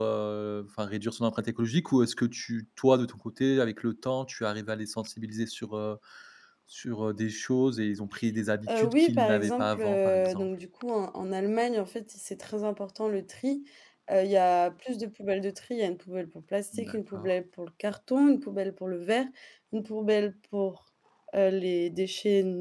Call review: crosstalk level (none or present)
present